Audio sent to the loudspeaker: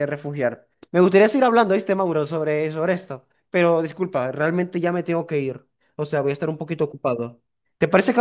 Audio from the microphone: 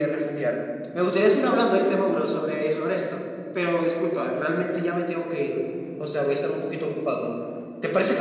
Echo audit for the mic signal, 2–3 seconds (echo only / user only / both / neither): echo only